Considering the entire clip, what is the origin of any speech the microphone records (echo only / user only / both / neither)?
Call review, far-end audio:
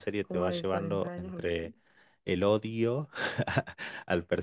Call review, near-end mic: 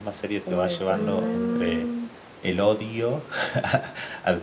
both